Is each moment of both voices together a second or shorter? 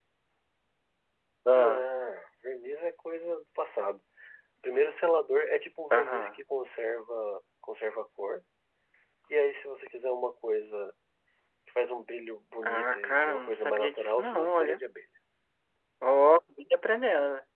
No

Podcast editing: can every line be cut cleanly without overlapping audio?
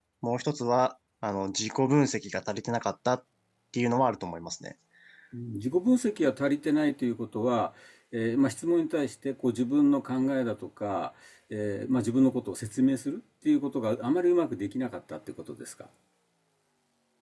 Yes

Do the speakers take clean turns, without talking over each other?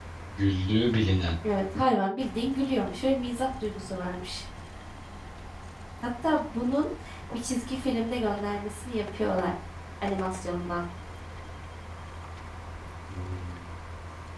Yes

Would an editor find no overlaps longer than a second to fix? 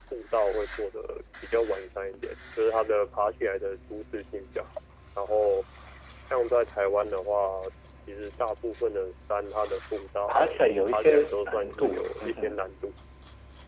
No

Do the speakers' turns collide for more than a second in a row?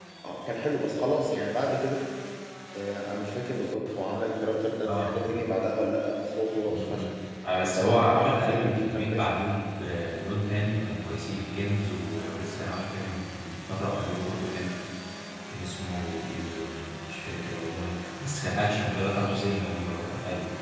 Yes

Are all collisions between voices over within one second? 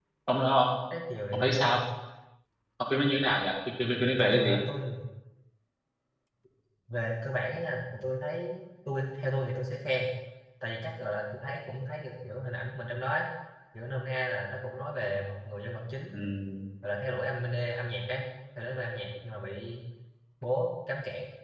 Yes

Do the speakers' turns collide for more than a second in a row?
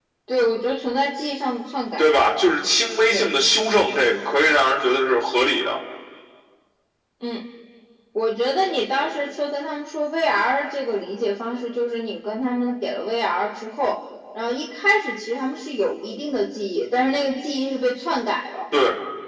No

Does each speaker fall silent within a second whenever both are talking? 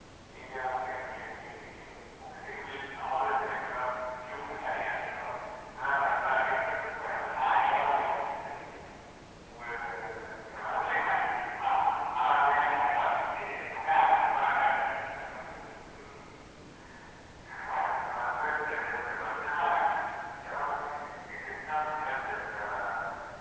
Yes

